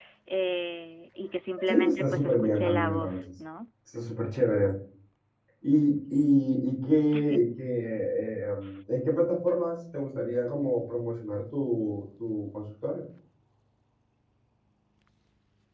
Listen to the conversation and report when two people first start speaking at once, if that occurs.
1.6 s

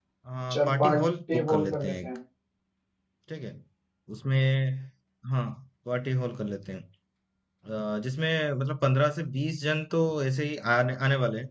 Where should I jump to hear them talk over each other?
0.5 s

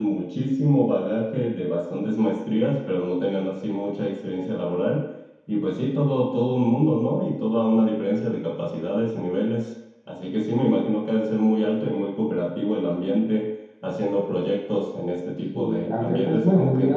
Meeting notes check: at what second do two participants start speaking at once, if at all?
15.5 s

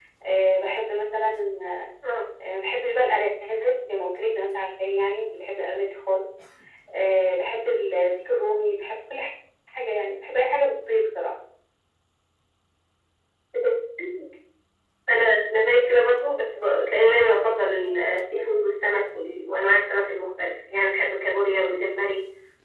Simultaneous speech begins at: none

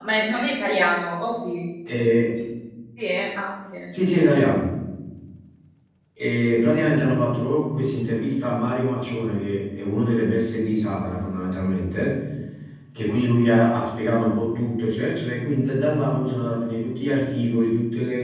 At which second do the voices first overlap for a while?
none

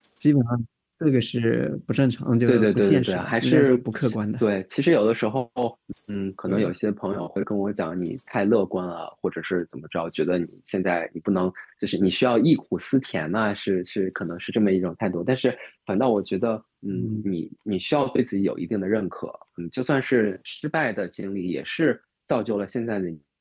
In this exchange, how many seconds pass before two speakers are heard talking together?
2.5 s

